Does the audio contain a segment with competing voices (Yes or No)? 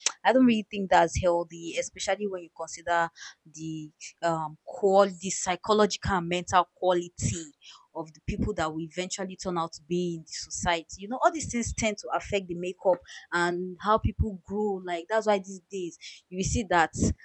No